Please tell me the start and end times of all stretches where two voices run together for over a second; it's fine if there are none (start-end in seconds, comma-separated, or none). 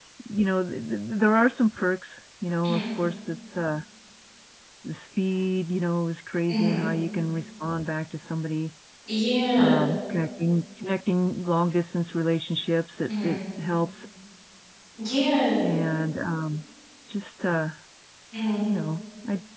none